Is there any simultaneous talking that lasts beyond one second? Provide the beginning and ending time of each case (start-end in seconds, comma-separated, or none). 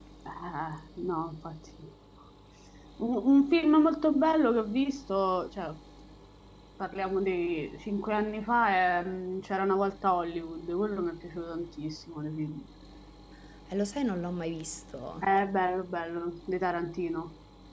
none